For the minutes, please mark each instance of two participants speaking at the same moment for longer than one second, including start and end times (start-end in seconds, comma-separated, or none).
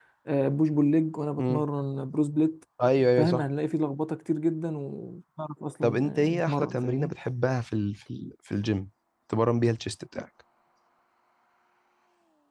5.8-7.1